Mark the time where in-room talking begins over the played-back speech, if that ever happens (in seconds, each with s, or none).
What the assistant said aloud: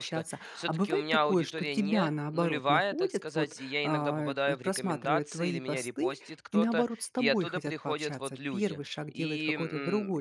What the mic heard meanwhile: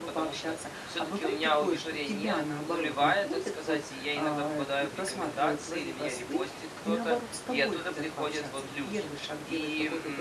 none